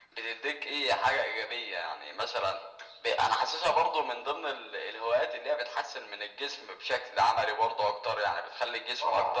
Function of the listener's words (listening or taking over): taking over